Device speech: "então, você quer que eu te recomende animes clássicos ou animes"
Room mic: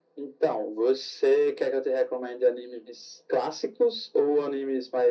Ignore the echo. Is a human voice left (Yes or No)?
No